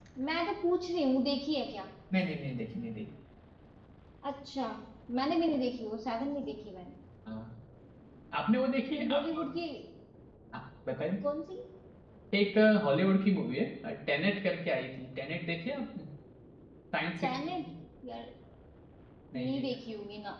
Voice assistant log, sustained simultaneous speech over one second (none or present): none